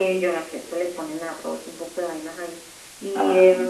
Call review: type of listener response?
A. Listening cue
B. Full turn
A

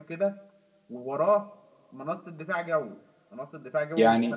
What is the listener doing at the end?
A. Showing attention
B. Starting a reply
B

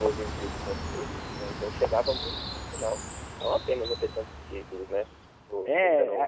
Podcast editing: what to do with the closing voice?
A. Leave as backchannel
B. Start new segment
B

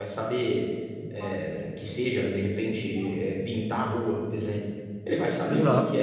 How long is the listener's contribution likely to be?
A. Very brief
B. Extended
A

